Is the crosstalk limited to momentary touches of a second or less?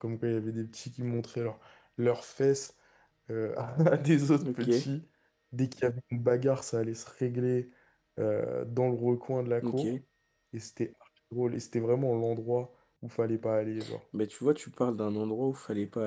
Yes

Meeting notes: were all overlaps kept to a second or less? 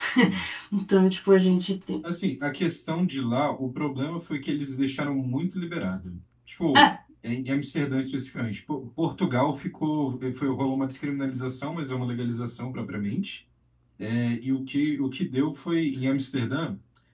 Yes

